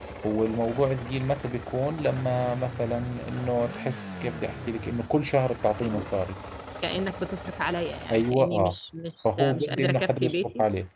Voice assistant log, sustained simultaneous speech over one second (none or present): present